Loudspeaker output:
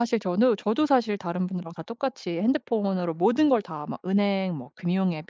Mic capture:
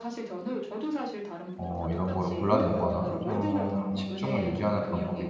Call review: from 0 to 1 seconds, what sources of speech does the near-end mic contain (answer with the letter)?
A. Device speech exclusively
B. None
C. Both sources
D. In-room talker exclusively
A